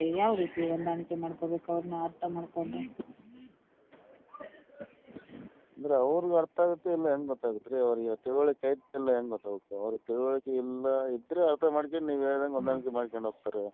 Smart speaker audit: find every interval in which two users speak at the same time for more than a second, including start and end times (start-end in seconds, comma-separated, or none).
none